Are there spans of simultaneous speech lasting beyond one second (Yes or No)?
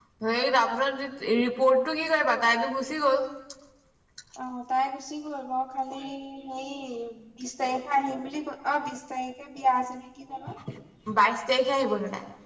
No